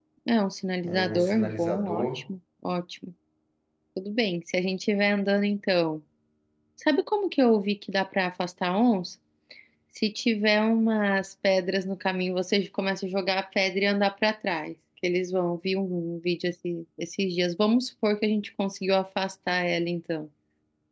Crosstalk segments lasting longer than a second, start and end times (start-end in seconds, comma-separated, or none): 0.8-2.3